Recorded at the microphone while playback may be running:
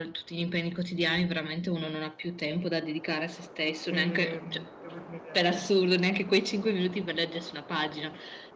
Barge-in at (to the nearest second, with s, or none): 4 s